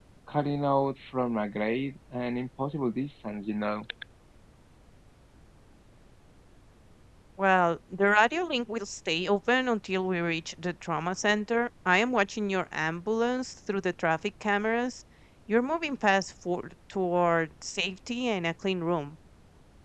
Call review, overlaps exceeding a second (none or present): none